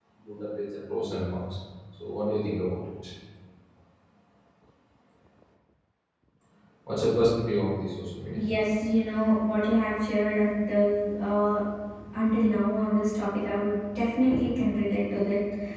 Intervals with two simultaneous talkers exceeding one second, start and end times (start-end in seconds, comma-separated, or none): none